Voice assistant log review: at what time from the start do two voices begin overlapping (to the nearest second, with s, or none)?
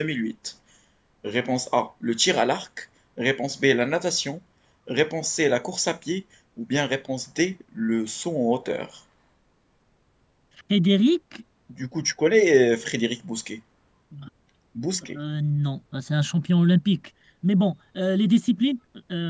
none